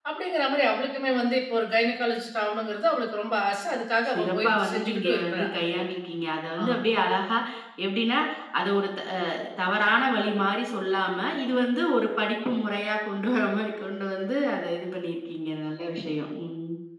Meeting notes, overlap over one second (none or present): present